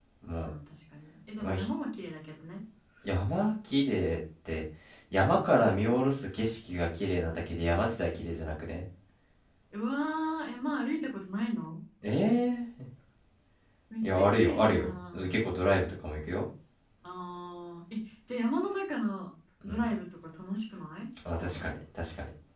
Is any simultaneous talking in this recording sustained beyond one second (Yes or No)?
Yes